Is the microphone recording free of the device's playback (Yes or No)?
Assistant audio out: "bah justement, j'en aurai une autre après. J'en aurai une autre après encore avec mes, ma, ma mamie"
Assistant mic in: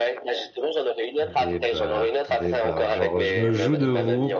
No